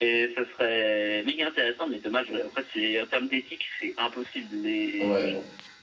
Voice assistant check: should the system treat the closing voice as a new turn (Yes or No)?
Yes